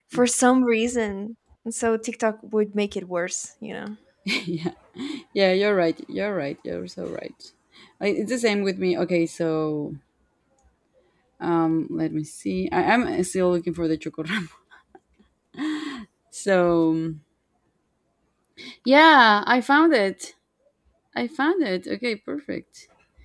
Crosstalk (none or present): none